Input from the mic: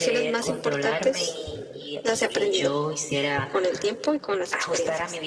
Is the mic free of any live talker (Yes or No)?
No